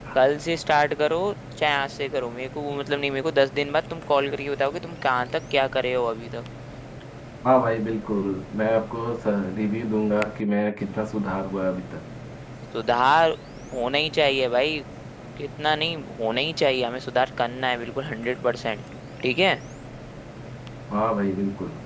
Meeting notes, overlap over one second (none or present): none